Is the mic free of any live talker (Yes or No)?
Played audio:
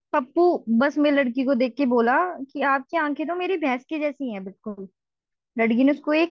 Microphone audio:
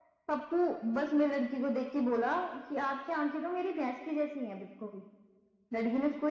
Yes